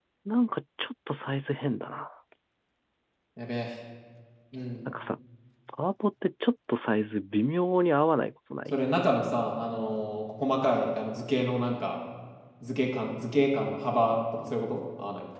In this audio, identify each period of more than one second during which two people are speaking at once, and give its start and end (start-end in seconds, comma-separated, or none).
none